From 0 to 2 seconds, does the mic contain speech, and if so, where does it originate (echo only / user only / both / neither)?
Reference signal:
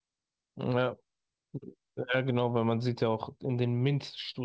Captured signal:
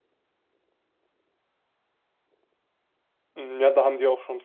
neither